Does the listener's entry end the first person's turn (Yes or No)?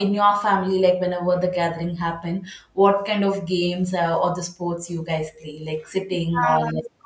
Yes